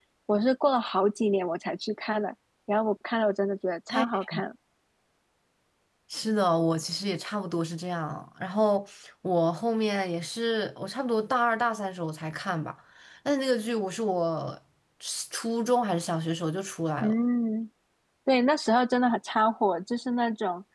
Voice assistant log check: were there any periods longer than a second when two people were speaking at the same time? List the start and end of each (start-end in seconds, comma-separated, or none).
none